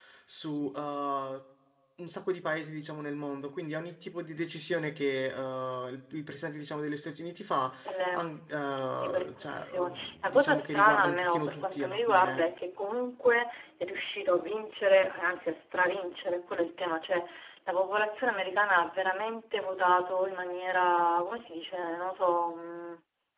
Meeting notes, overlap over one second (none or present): present